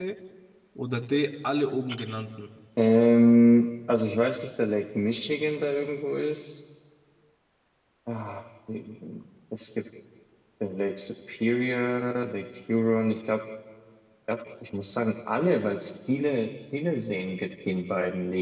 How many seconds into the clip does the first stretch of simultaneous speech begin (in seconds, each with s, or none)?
none